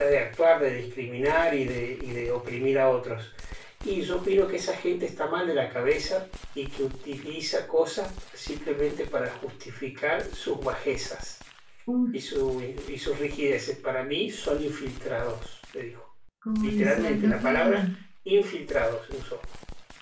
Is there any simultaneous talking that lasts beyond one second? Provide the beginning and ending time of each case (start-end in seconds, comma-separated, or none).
16.6-17.8